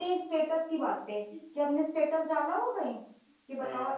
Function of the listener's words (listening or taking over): listening